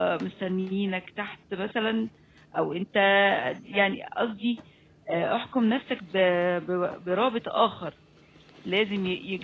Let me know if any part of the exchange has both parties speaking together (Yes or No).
No